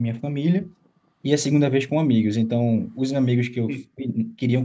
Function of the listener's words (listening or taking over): listening